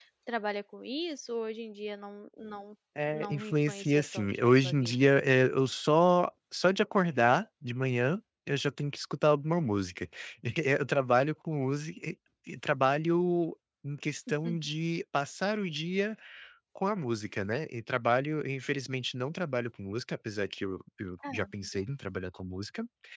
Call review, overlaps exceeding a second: present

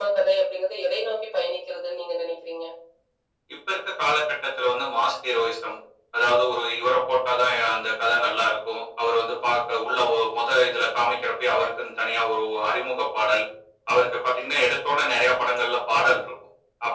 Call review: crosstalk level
none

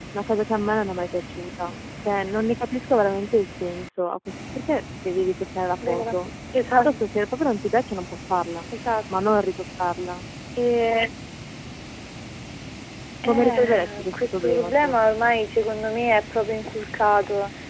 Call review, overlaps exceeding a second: present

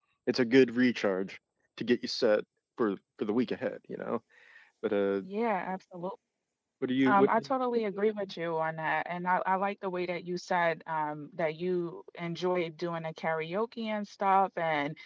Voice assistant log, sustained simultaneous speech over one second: none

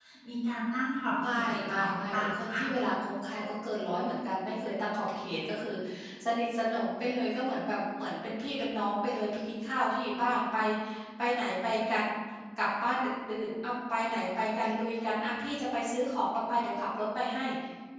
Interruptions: present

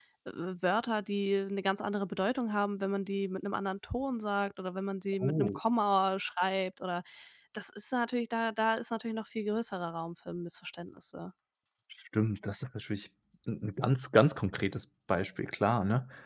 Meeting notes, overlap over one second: none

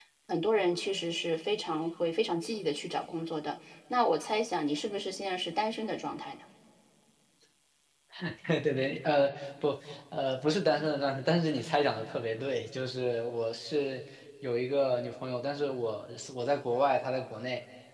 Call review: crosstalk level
none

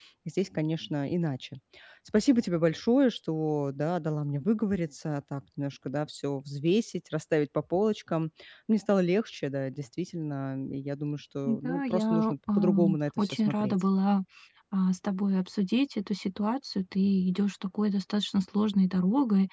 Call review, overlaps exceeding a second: present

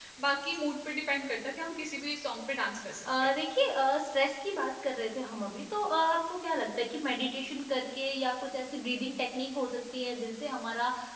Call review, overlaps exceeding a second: none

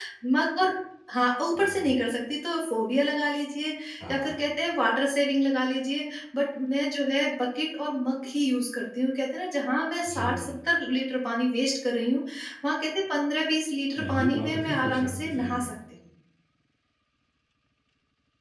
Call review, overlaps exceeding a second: present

